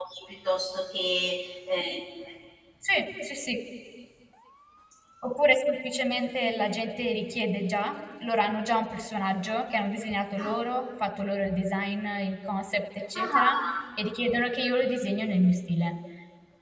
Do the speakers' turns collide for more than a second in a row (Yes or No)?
No